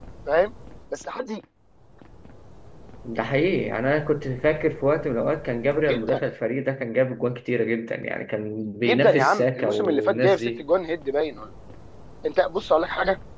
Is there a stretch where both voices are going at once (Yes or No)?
Yes